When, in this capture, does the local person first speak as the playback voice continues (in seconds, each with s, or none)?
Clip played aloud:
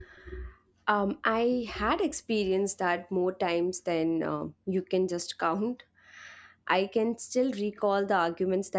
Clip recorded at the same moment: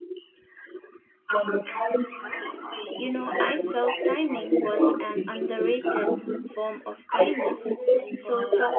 3.0 s